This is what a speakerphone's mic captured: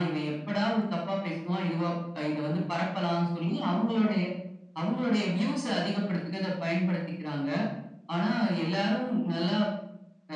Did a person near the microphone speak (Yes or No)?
No